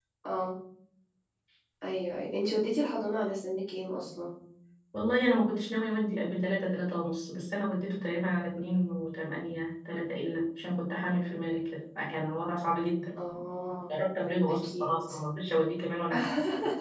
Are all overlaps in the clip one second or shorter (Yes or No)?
Yes